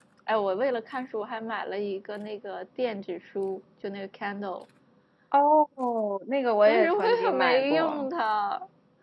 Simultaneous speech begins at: 6.7 s

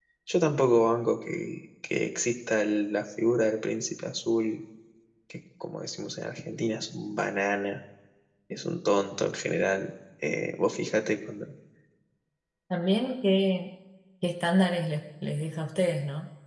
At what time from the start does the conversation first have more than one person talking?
none

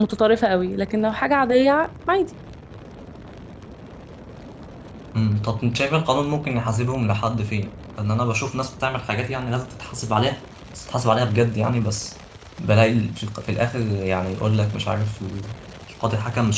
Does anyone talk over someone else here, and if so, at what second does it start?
none

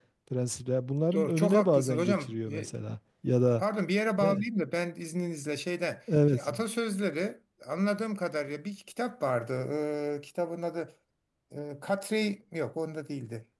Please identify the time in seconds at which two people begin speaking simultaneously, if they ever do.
1.1 s

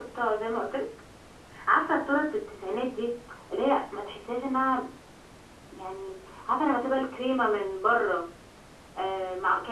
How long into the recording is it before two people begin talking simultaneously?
none

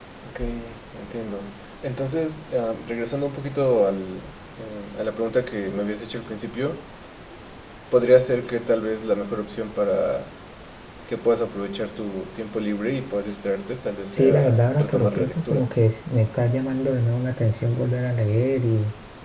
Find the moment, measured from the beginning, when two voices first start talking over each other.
14.1 s

